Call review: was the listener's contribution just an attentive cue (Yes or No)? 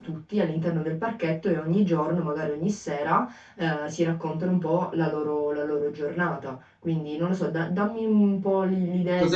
No